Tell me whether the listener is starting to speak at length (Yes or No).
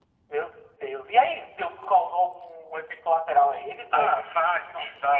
Yes